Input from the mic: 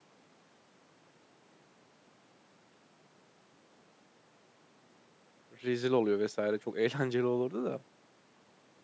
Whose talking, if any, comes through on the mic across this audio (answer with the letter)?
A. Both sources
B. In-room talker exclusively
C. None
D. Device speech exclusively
B